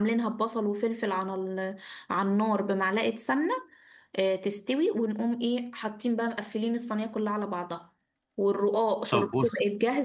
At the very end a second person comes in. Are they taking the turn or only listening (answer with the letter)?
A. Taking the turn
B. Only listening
B